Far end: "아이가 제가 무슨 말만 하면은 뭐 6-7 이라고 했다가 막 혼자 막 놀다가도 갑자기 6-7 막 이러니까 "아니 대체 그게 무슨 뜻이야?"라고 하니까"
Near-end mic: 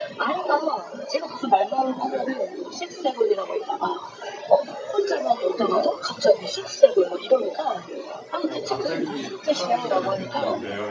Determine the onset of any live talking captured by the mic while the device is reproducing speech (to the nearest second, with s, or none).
8 s